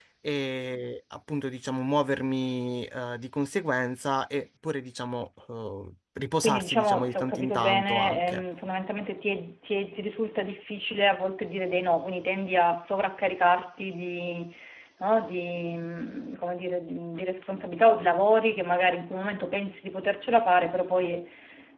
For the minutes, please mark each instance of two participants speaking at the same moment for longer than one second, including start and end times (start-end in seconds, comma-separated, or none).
6.4-8.4